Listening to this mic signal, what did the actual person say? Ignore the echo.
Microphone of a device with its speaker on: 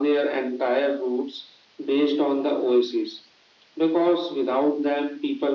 none

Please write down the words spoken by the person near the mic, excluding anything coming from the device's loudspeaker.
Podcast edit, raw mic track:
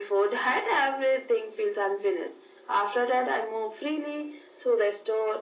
none

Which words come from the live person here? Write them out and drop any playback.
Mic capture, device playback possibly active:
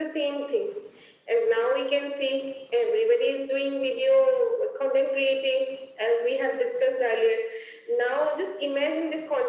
none

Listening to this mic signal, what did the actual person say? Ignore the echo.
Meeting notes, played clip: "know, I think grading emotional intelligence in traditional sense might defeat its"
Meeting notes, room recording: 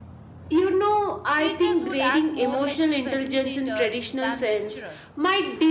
Teachers would act more like facilitators than lecturers,

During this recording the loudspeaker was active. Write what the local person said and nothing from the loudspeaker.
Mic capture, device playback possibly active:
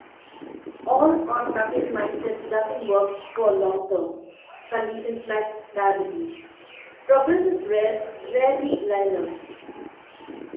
all or nothing mindset doesn't work for long term conditions like diabetes. Progress is rare, rarely linear,

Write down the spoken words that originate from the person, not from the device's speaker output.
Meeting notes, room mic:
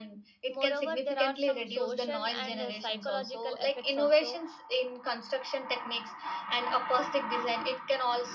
moreover there are some social and uh, psychological effects also

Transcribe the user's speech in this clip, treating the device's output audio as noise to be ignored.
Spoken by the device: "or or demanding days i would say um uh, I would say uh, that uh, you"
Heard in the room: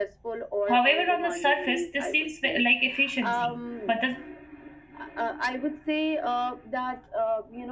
However, on the surface, this seems ve- like efficiency, but the

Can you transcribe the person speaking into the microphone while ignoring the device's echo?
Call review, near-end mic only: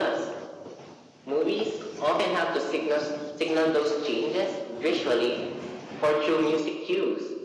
none

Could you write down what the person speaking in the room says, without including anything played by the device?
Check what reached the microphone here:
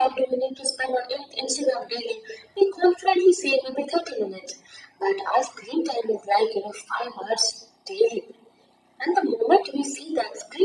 none

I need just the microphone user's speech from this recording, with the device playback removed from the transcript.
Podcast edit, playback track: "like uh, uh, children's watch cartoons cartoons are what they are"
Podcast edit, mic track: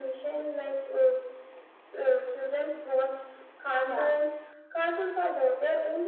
Yeah,

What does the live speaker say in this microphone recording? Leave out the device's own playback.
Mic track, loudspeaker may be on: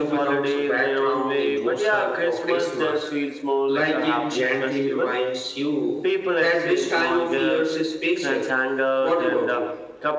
none

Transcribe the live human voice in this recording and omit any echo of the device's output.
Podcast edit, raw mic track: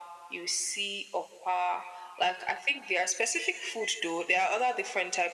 none

